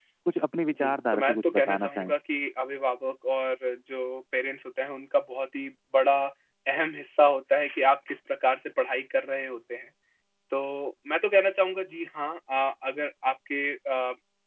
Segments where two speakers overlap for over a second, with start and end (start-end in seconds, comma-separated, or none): 0.7-2.1